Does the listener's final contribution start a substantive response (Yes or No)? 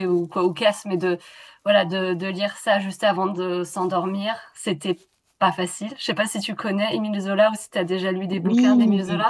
Yes